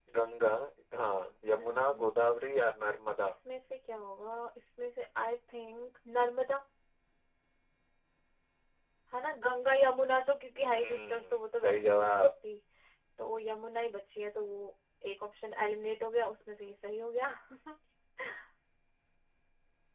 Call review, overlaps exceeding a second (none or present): present